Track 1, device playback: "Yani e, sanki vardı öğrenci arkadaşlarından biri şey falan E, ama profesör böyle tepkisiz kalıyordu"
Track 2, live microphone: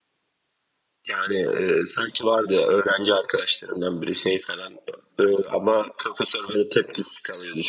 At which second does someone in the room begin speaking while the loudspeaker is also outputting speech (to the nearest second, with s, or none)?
none